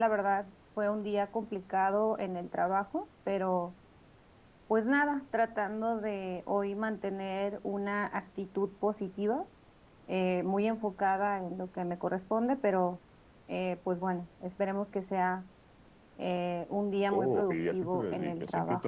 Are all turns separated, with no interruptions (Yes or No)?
No